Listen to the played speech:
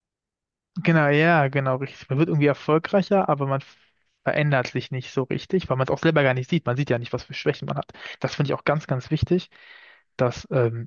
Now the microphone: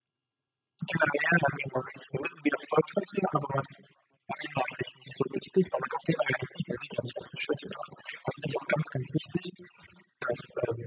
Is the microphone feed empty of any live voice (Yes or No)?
Yes